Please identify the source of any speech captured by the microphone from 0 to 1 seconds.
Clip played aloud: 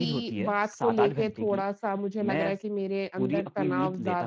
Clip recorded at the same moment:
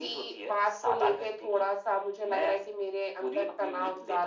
echo only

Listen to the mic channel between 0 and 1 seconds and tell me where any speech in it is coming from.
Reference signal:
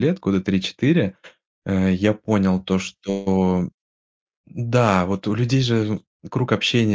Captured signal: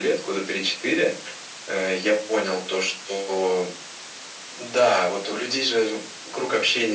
echo only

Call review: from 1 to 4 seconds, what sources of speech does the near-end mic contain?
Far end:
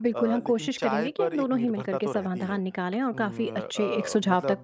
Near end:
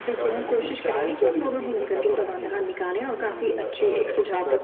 echo only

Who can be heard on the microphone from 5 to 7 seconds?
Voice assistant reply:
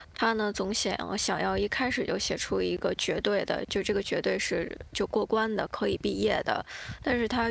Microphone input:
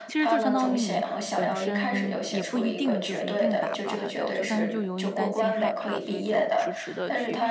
both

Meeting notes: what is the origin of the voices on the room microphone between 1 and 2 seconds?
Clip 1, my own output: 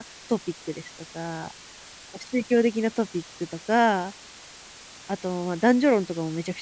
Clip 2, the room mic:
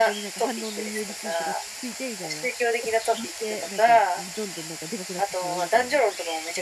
both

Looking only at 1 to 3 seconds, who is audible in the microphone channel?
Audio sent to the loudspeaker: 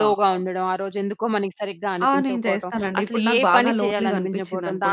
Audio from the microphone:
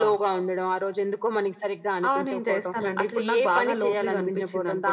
echo only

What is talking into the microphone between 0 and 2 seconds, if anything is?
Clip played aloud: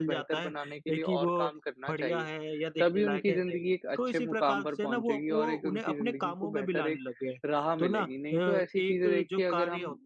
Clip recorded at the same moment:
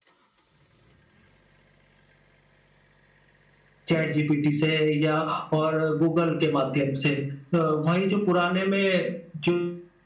neither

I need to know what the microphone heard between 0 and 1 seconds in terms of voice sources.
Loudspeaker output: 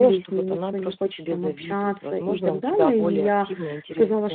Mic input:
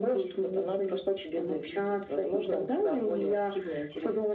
echo only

